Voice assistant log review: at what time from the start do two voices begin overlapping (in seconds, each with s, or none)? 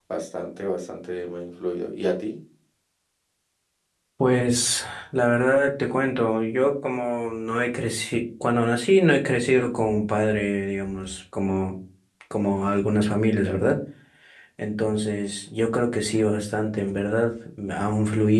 none